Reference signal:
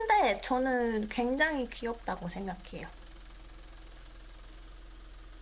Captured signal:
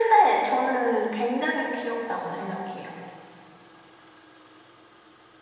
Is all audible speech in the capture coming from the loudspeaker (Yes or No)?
Yes